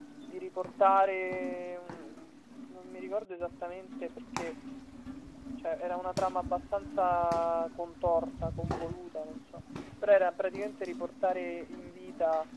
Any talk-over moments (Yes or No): No